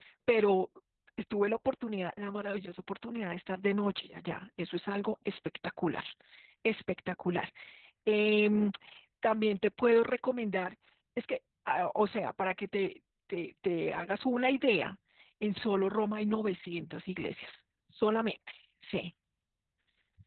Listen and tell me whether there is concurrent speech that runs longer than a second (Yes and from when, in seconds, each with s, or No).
No